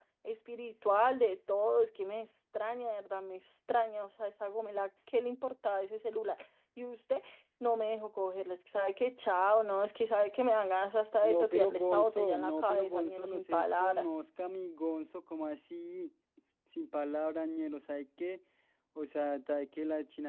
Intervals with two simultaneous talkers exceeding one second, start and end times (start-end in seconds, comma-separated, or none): 11.2-14.1